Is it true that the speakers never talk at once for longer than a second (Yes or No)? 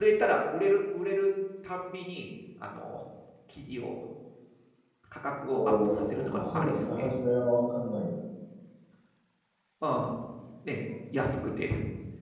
No